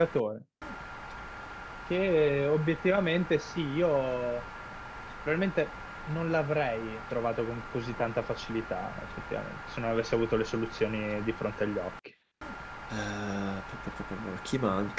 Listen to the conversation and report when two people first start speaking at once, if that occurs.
none

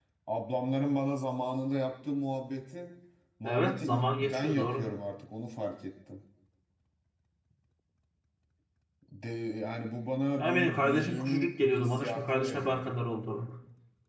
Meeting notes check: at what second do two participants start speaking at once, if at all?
3 s

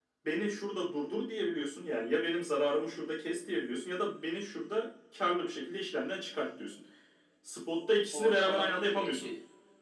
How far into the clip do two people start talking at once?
8 s

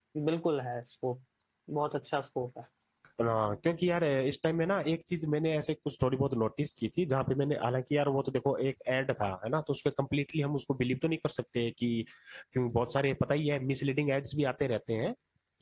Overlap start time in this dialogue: none

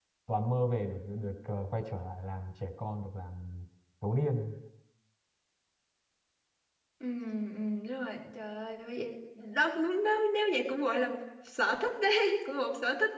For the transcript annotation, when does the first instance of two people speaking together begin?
none

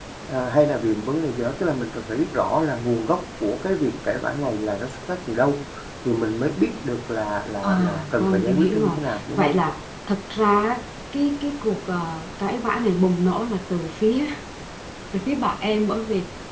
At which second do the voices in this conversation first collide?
8 s

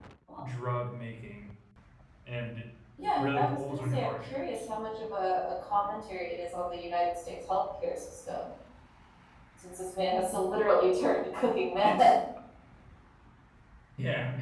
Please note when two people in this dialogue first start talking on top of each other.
3 s

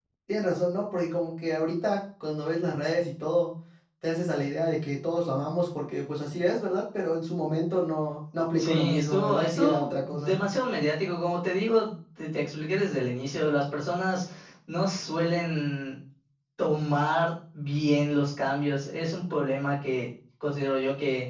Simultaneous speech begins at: 9 s

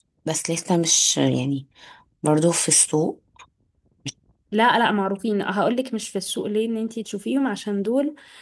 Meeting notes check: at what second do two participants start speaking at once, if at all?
none

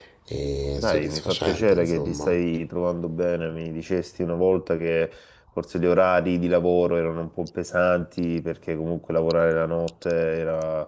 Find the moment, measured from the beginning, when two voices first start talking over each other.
1 s

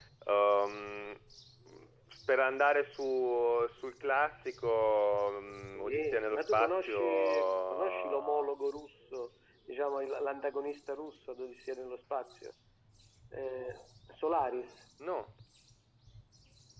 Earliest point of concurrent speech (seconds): 6 s

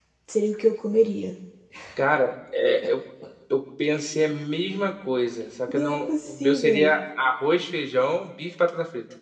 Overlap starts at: 6 s

